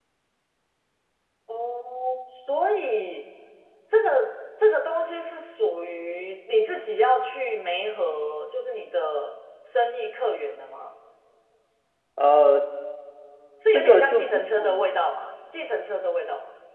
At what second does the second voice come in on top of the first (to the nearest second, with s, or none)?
14 s